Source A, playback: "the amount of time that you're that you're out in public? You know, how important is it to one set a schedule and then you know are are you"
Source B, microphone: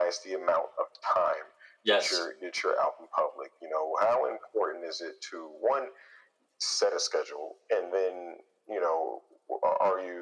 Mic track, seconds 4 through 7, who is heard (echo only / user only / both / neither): echo only